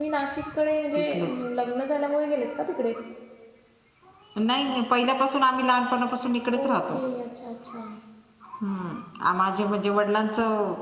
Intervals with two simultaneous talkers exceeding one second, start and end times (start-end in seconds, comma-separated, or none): none